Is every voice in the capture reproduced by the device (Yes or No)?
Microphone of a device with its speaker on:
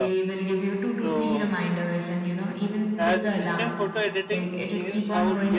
No